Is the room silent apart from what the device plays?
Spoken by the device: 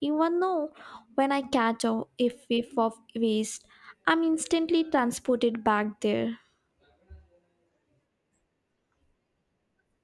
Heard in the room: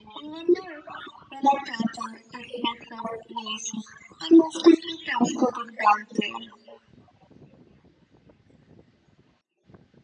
Yes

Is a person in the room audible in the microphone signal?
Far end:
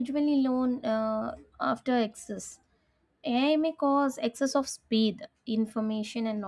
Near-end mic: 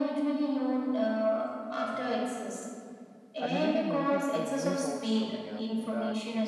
Yes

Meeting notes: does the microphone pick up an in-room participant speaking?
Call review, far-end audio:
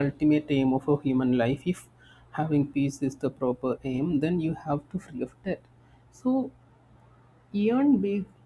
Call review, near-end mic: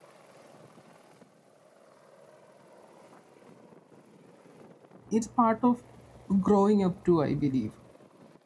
Yes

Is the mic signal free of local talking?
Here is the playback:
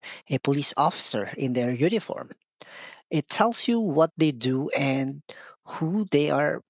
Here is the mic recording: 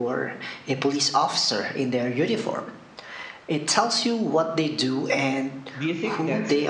No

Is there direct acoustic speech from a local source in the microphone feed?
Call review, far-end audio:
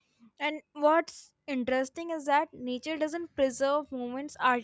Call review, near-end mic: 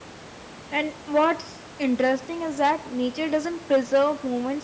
No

